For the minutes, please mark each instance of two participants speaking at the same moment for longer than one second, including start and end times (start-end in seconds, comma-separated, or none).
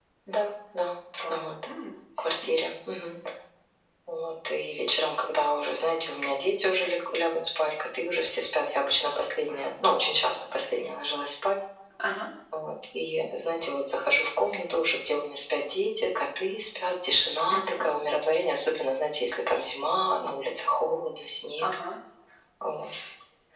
none